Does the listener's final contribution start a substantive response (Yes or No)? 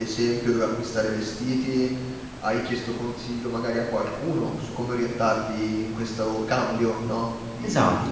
Yes